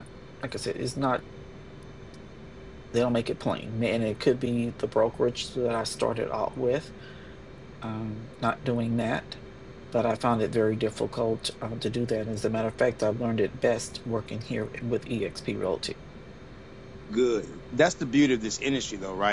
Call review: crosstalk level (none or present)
none